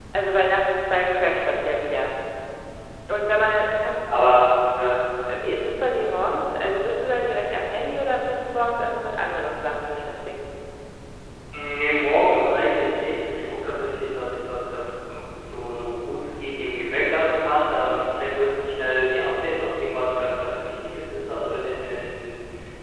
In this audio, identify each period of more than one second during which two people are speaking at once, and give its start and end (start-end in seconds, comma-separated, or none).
none